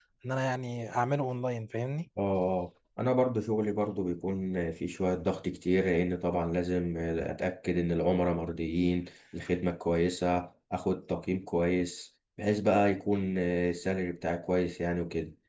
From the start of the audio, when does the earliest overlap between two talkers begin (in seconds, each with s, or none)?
none